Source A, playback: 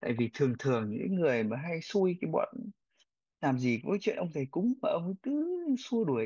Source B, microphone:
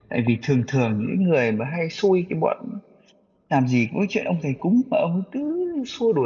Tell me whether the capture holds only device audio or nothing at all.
Yes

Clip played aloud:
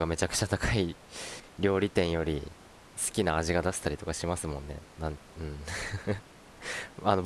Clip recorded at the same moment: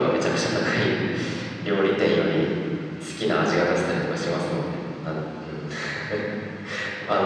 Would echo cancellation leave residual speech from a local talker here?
No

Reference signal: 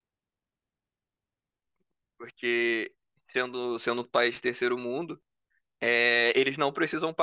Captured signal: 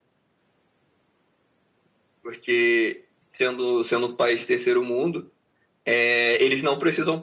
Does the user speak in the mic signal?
No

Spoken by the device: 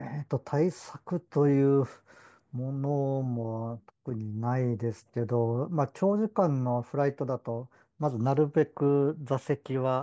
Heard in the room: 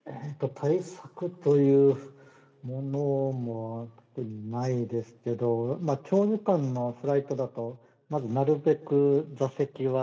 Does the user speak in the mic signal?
No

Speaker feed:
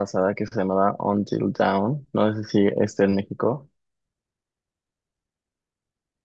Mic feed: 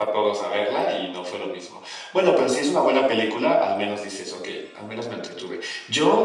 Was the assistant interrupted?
Yes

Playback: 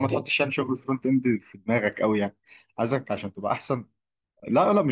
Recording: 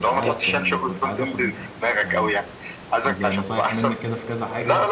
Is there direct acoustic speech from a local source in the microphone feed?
Yes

